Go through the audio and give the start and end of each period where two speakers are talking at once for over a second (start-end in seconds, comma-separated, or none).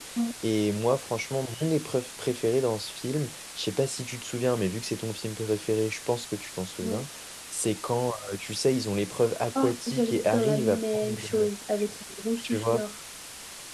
9.6-11.5